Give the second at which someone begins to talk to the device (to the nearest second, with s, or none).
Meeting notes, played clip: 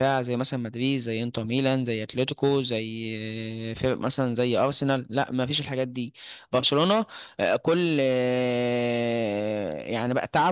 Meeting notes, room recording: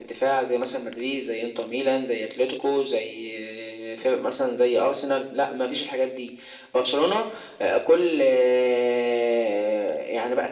none